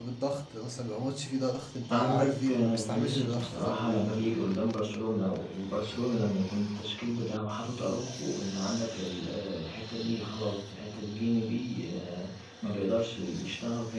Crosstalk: present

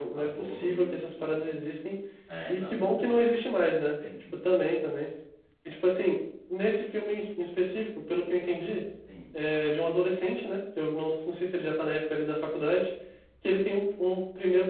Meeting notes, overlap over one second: present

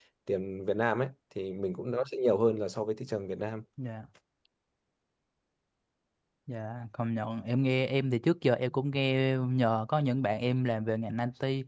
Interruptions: none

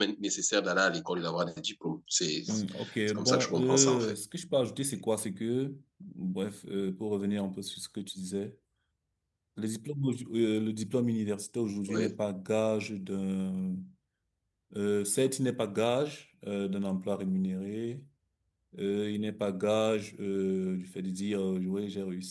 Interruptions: present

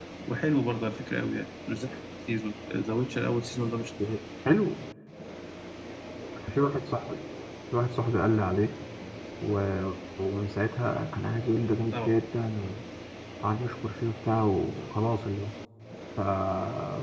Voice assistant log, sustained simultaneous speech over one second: none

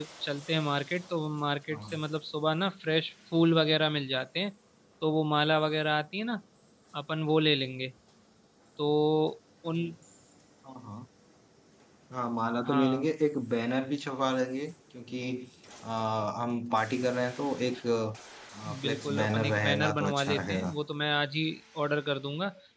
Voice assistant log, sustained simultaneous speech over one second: present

